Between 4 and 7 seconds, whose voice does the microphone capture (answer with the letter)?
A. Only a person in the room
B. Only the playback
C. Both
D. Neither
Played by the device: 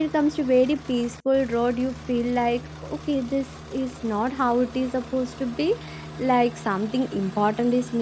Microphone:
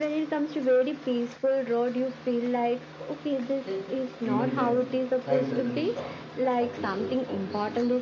C